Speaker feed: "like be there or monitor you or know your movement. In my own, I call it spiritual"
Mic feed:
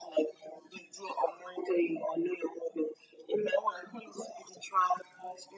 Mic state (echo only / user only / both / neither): echo only